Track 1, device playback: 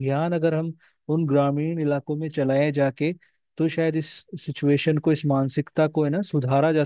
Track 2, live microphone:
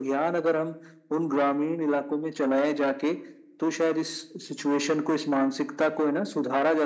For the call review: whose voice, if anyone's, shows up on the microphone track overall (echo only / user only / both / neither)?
echo only